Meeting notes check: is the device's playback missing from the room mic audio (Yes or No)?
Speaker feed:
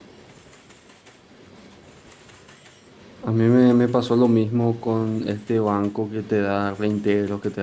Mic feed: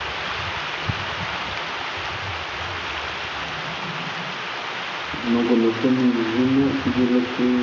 Yes